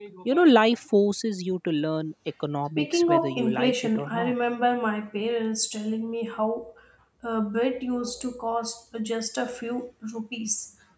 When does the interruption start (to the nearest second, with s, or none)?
3 s